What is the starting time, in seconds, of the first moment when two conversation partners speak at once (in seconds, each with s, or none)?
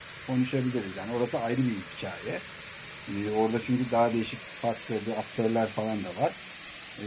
none